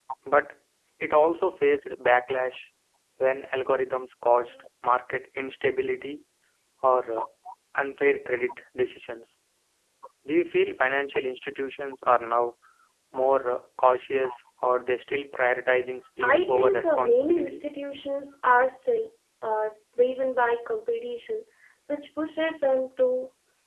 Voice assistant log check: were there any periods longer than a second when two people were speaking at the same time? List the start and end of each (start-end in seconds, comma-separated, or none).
16.2-17.6